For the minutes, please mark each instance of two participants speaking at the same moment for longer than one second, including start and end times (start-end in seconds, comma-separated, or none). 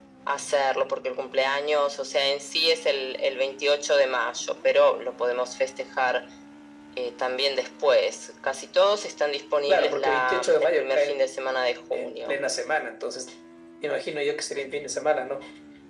9.7-11.3